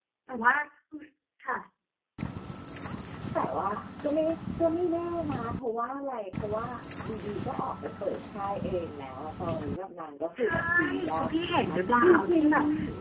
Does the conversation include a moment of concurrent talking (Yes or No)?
Yes